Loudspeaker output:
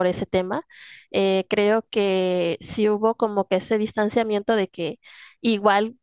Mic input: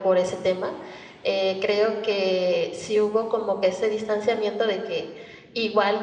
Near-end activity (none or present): none